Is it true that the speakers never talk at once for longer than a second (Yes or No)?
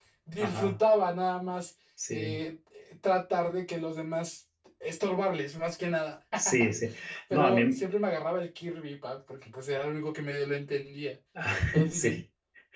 Yes